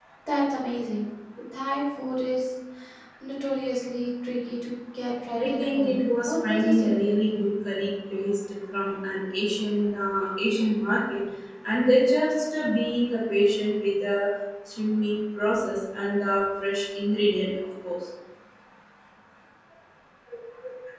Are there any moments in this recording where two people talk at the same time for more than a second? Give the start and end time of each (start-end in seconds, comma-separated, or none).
5.3-7.1